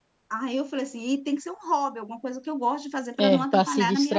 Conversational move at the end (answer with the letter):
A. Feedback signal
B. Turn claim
B